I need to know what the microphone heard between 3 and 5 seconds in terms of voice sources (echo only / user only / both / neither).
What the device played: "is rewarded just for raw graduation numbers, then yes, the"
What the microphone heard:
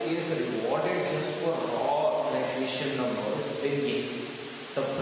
echo only